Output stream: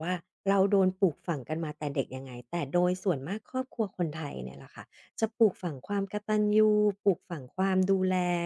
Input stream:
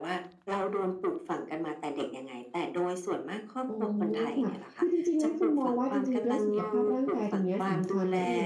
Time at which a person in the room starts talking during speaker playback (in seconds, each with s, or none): 3.7 s